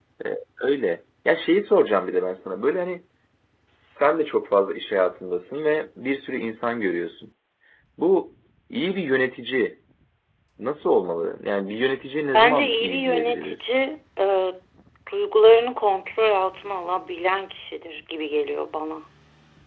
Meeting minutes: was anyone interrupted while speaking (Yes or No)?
Yes